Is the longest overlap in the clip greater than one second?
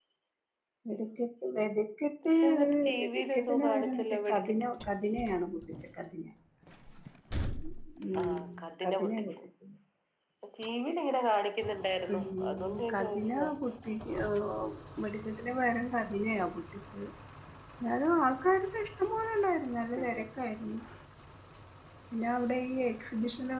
Yes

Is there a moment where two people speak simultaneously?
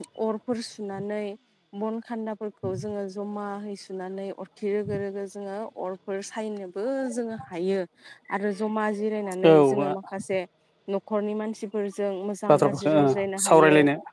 Yes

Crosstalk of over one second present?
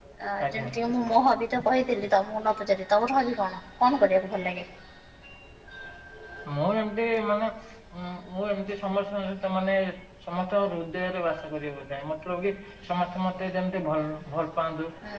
No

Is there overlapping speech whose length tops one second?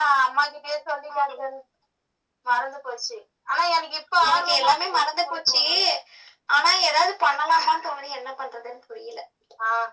Yes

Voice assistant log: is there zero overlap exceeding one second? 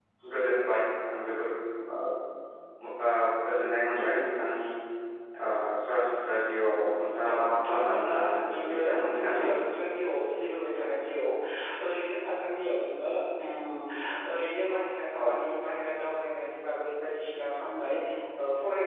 No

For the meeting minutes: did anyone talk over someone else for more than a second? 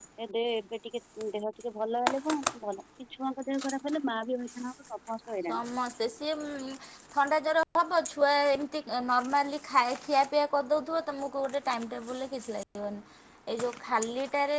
No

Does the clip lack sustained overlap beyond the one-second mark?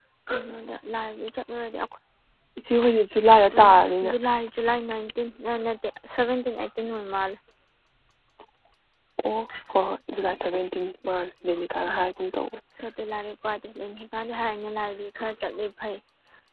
Yes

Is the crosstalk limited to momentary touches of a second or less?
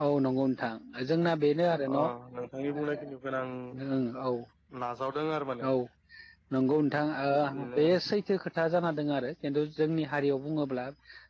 Yes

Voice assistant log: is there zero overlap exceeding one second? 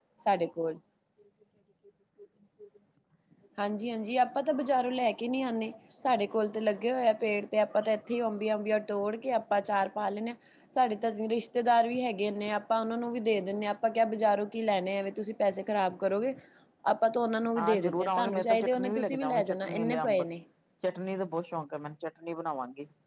No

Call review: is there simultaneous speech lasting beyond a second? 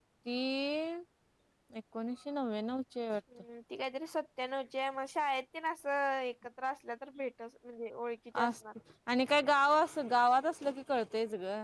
No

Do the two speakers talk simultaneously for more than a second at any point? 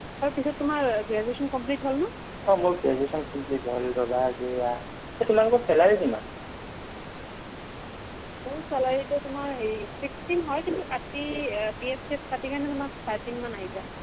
No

